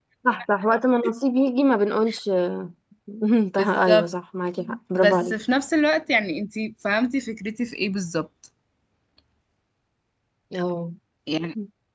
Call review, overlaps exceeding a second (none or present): none